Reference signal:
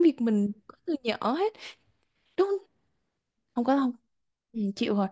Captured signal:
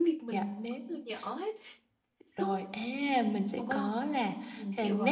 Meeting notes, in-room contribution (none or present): present